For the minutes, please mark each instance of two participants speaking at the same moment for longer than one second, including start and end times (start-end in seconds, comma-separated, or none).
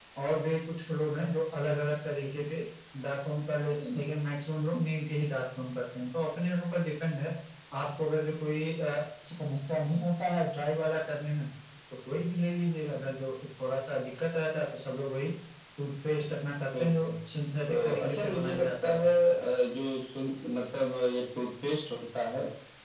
17.7-19.0